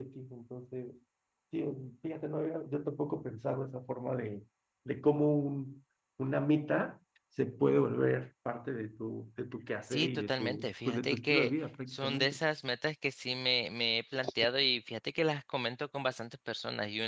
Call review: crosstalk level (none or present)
present